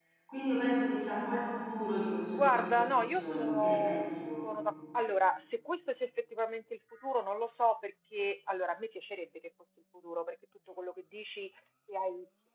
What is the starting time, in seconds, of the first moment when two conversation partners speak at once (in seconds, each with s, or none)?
2.3 s